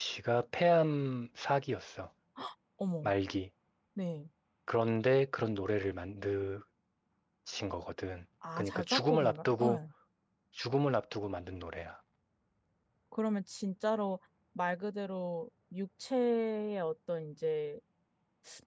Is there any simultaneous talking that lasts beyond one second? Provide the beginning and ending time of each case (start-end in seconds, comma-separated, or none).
8.6-9.8